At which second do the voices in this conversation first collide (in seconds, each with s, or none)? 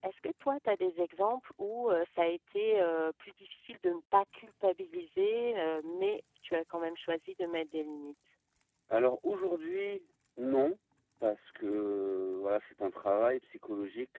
none